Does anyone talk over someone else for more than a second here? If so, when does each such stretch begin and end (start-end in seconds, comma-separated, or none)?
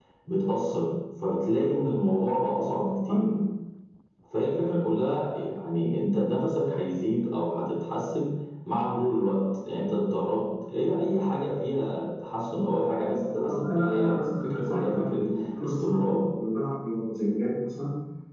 13.0-15.2